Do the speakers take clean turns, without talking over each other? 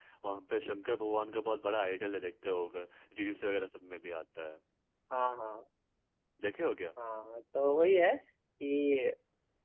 Yes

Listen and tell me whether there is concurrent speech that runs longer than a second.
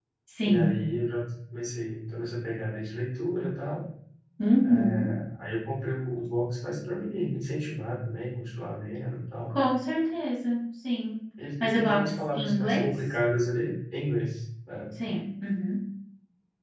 Yes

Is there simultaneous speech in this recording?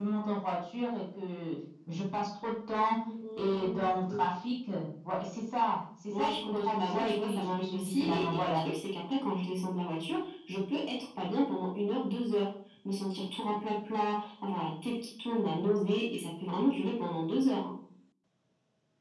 Yes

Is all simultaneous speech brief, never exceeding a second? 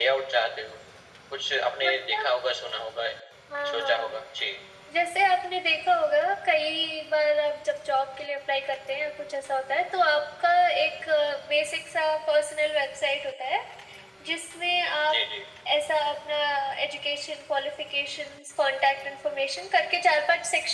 Yes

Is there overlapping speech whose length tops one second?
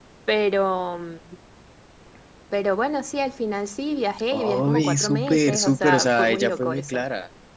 Yes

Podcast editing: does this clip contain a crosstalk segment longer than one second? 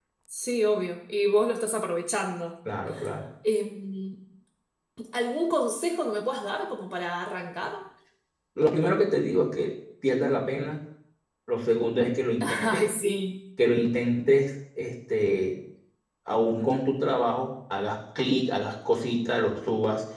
No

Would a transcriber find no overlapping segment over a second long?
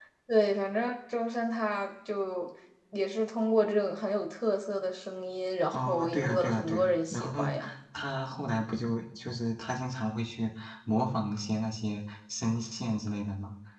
No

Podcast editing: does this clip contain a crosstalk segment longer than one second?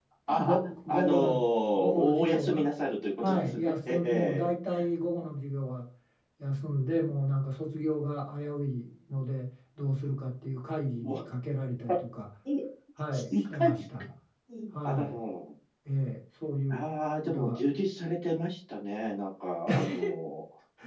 Yes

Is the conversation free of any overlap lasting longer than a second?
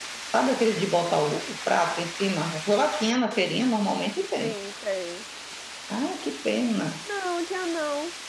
Yes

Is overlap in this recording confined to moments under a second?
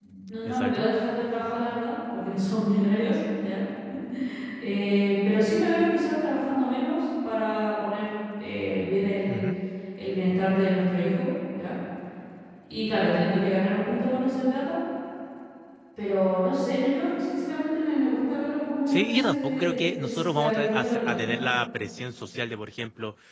No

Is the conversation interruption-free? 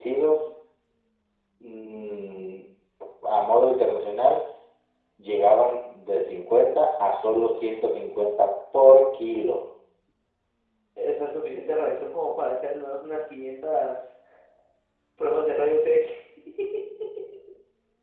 Yes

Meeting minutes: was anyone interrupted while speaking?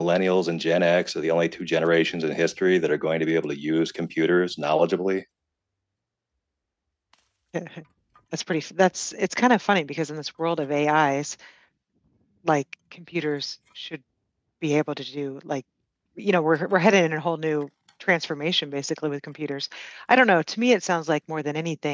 No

